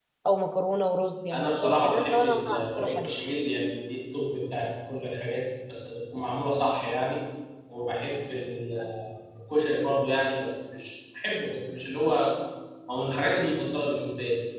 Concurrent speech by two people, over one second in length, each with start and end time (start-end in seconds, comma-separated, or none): 1.3-3.1